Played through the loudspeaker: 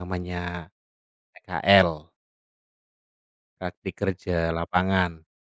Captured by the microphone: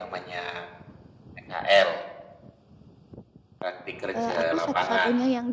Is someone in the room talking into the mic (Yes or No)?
Yes